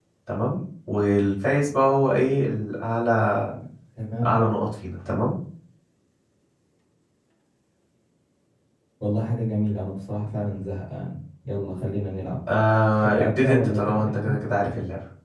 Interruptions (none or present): present